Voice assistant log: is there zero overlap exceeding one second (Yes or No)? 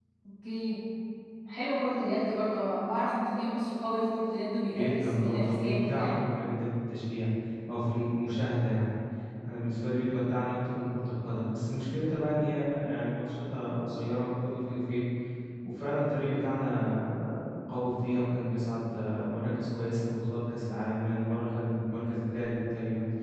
No